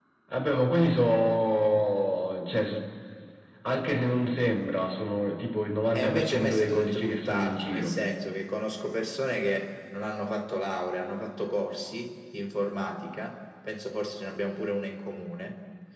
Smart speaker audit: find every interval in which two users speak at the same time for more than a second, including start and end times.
5.9-8.0

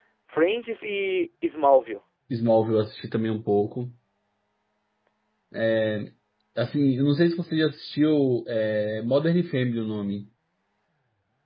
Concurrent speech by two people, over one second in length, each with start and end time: none

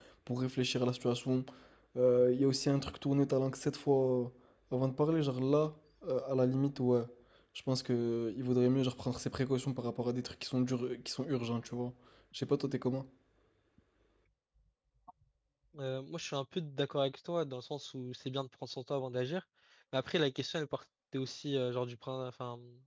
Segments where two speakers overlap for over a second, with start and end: none

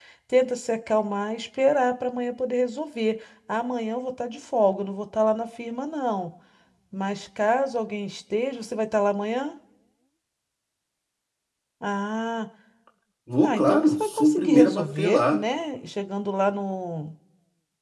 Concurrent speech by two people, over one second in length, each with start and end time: 13.4-15.4

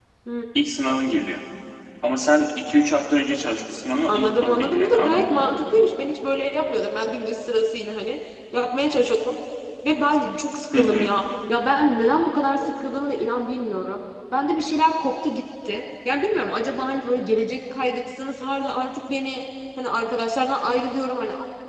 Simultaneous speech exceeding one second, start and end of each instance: 4.1-5.5

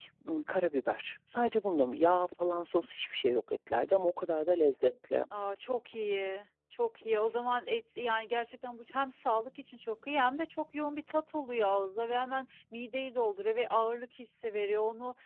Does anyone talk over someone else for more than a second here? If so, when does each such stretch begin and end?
none

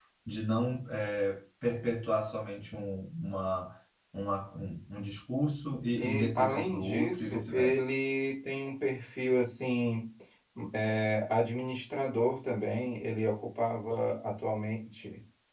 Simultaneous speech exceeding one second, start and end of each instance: 6.0-7.8

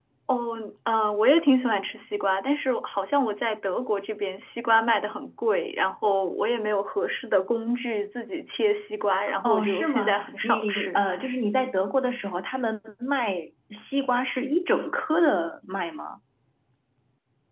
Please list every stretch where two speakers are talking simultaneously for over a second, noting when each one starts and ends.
9.4-11.0

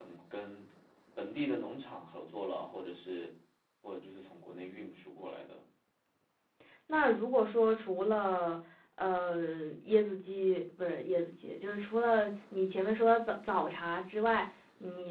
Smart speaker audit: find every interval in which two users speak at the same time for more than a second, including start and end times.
none

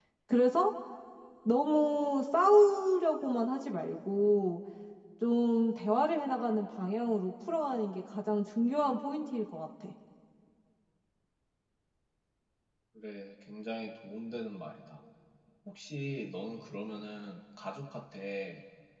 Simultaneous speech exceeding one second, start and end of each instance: none

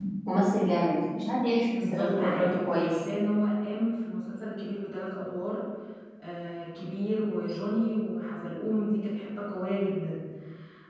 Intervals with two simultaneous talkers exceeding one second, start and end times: 1.7-3.0

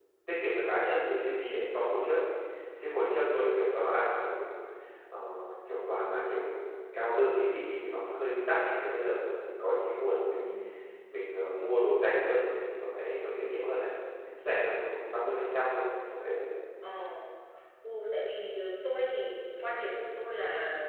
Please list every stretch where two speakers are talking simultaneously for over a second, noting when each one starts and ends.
none

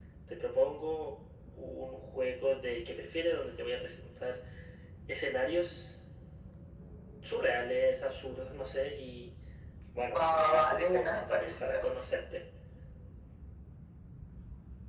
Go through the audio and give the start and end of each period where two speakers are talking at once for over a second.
10.2-12.0

